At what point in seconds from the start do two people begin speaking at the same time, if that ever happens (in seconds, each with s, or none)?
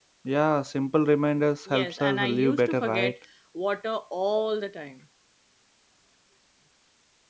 1.7 s